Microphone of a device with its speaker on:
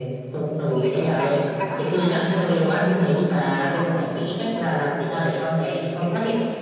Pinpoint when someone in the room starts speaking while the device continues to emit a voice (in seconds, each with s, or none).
0.7 s